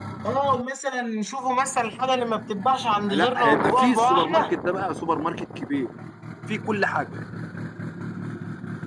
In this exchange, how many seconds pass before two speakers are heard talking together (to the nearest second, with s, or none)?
3 s